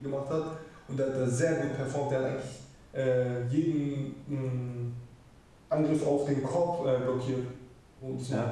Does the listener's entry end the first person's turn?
No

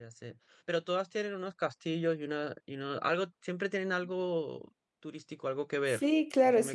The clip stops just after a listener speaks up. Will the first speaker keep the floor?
No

